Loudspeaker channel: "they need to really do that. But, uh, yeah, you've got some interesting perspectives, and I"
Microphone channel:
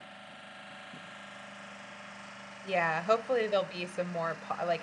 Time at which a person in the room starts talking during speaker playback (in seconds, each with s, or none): 2.7 s